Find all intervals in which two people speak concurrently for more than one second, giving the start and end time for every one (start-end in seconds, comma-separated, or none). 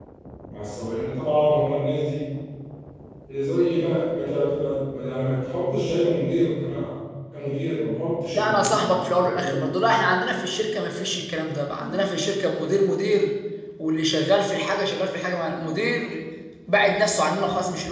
8.3-9.7